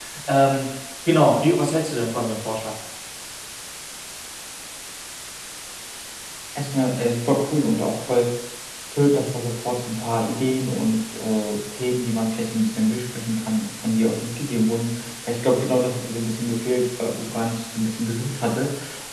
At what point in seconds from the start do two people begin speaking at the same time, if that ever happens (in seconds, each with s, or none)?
none